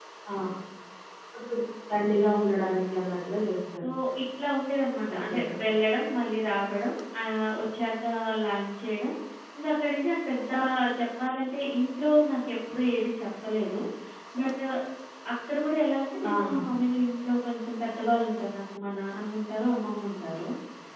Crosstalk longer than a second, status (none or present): none